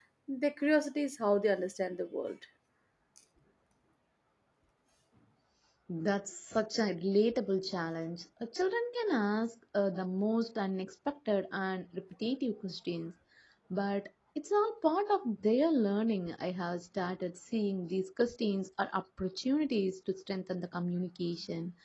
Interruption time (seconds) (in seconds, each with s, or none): none